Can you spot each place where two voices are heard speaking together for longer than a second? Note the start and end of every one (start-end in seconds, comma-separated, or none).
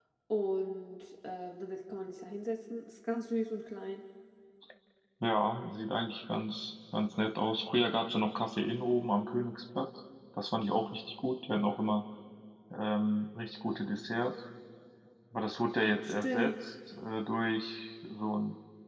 none